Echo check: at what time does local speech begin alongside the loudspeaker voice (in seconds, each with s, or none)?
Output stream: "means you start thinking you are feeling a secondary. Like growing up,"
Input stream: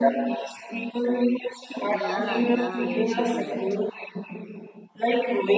1.8 s